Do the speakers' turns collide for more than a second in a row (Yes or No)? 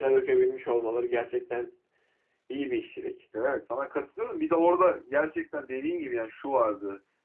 No